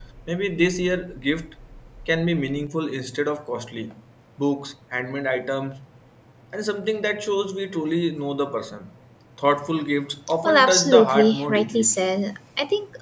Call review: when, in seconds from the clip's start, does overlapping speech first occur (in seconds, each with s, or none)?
10.4 s